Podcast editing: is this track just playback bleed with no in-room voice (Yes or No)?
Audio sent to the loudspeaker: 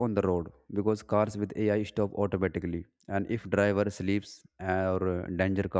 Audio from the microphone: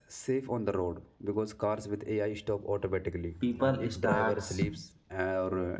No